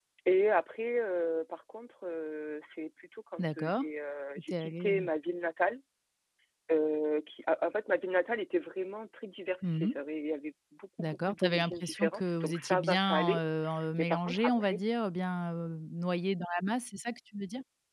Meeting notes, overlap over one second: present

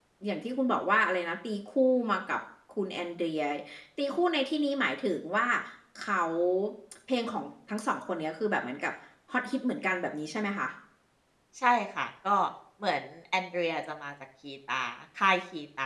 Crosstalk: none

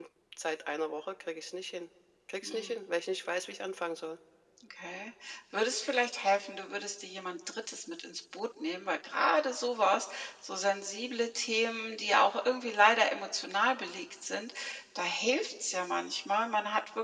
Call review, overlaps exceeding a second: none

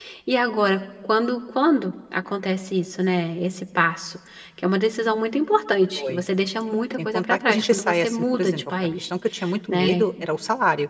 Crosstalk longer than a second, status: present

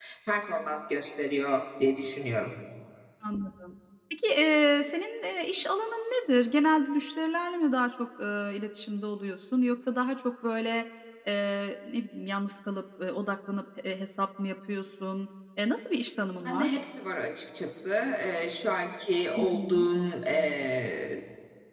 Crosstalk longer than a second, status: none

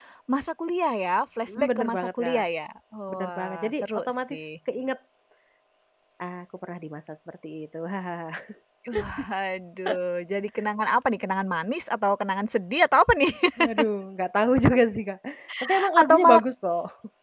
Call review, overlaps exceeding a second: present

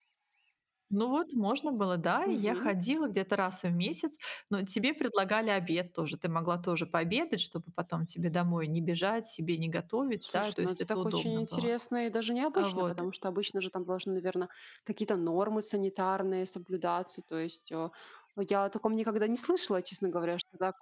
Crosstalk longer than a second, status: present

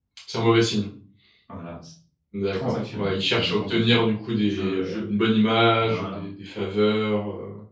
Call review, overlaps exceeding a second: present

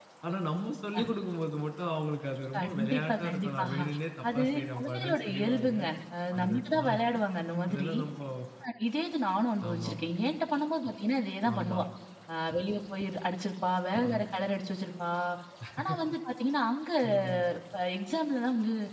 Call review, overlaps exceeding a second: present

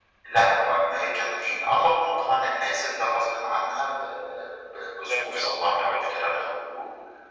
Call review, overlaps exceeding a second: present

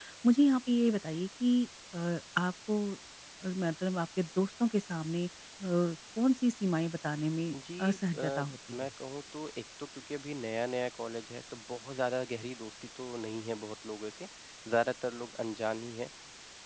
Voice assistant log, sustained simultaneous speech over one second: present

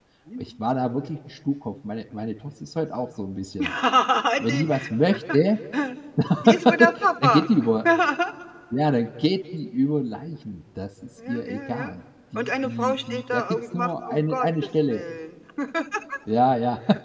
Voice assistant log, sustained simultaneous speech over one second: present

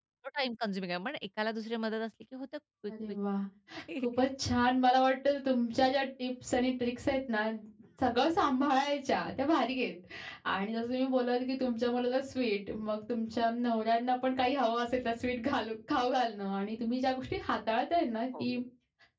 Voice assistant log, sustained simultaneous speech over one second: none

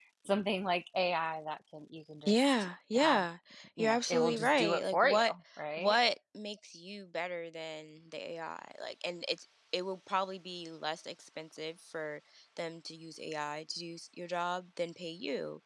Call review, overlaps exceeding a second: present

